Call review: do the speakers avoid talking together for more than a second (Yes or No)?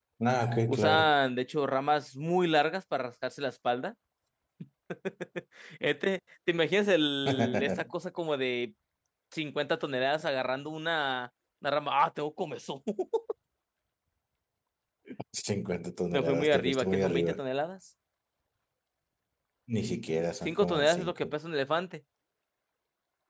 No